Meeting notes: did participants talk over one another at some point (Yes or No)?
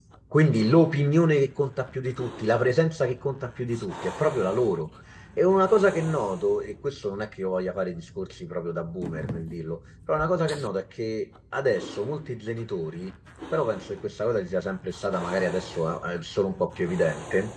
No